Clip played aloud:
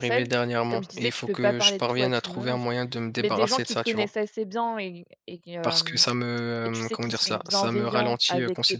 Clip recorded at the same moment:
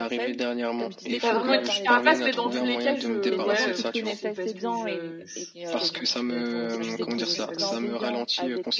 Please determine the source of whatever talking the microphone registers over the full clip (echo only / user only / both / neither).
both